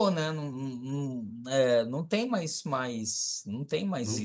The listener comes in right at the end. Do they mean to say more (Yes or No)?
Yes